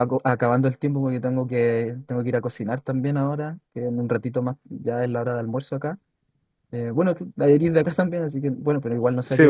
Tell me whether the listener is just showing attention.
Yes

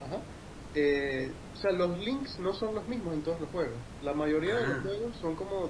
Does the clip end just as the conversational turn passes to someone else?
No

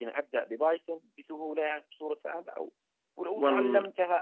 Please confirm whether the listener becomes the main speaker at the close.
No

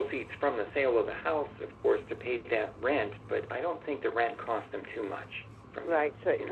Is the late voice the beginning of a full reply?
Yes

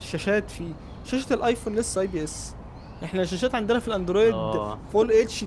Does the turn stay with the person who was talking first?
Yes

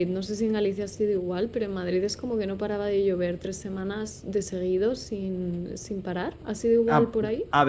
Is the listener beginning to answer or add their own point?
Yes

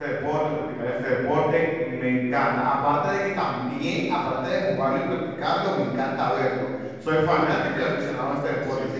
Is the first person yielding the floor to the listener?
No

